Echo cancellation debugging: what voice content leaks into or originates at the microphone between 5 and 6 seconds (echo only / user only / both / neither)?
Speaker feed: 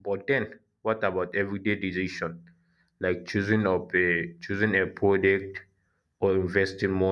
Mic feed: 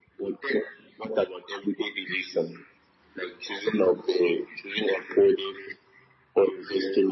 echo only